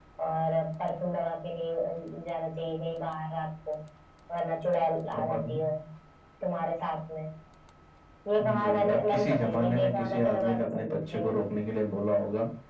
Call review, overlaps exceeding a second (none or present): present